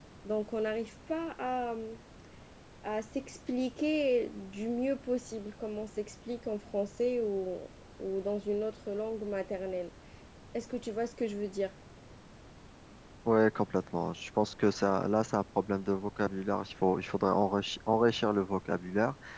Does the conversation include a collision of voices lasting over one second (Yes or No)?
No